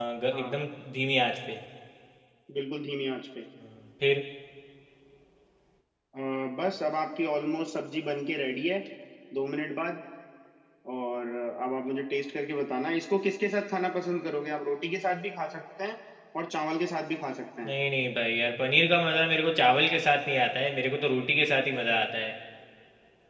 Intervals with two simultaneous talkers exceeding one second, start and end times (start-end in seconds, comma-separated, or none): none